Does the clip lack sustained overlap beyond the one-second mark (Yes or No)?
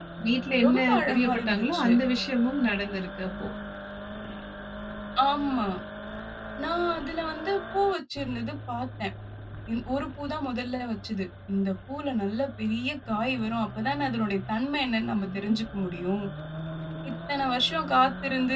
No